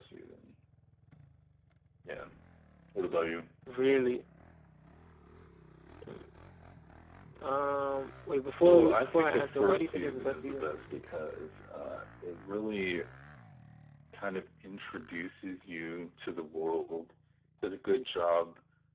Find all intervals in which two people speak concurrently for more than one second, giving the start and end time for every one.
8.6-10.7

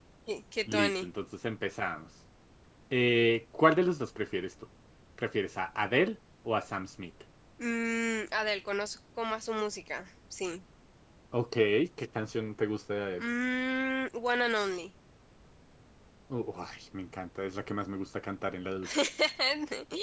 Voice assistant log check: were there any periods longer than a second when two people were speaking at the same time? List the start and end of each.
none

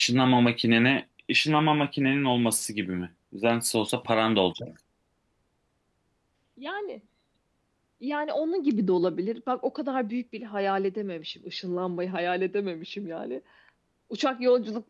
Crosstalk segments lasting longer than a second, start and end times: none

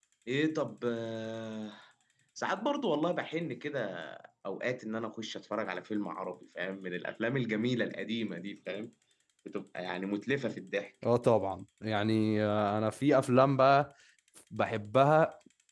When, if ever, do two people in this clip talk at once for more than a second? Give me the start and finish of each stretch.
none

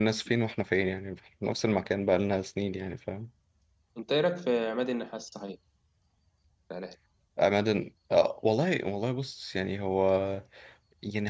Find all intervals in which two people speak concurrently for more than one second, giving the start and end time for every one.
none

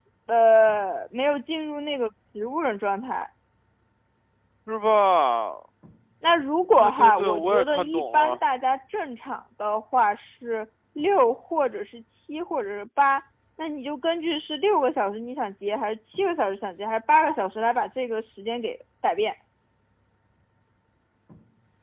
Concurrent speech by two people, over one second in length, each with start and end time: 6.8-8.4

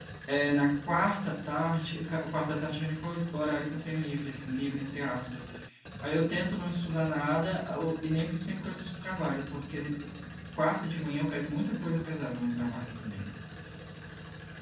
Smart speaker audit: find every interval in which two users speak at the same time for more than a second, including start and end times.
none

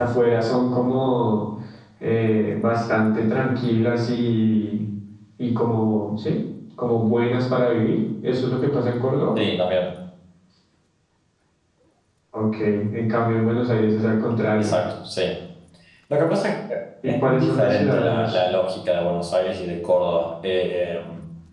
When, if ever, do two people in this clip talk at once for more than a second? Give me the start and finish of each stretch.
17.0-18.4

